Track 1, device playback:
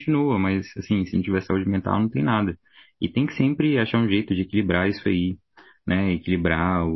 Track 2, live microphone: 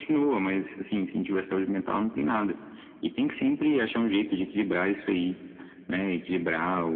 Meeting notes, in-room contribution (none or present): none